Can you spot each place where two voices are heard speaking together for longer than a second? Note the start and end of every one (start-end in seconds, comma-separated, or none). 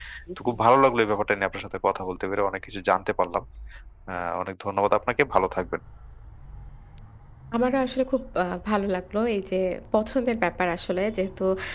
none